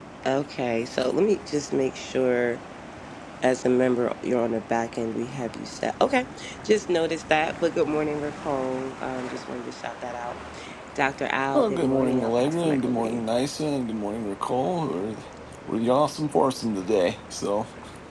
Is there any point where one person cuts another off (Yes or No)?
Yes